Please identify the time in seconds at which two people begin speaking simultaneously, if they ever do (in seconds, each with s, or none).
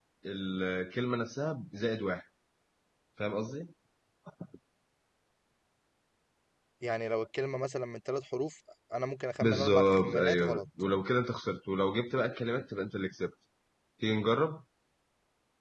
9.4 s